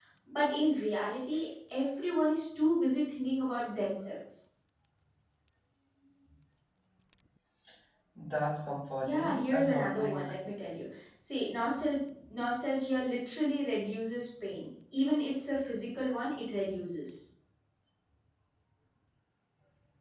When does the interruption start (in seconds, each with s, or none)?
9.0 s